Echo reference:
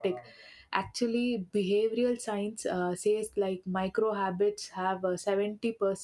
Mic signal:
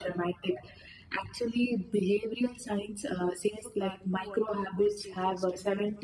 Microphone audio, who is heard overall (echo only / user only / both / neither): both